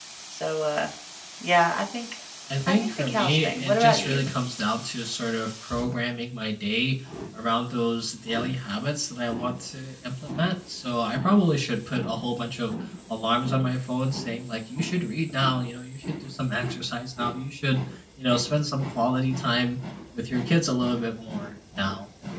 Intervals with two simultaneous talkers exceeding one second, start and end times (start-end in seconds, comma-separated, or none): 2.7-4.2